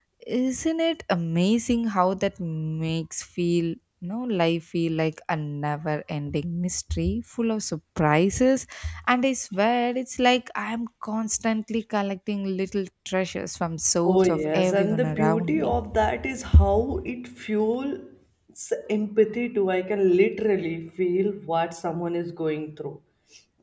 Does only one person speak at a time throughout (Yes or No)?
No